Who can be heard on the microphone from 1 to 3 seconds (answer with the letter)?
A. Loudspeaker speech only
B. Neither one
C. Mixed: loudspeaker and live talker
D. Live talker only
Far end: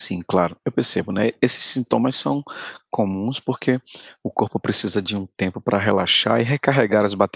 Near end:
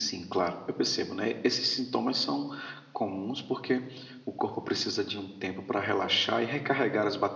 A